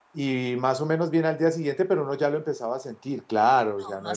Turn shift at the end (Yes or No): Yes